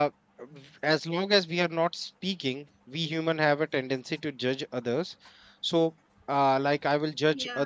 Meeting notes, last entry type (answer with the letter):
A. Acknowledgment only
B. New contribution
A